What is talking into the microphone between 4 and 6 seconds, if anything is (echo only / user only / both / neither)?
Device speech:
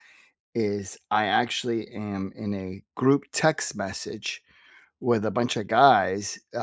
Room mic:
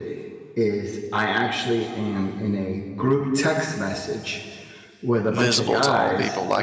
both